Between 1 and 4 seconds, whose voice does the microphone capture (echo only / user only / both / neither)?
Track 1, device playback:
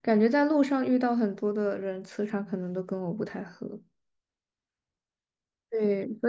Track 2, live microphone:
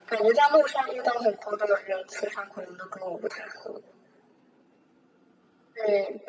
echo only